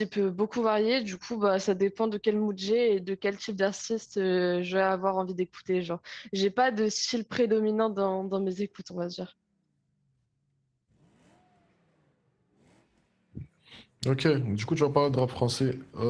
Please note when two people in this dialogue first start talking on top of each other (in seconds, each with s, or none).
none